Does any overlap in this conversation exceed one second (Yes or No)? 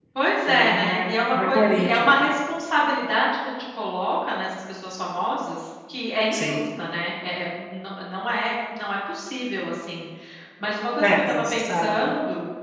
Yes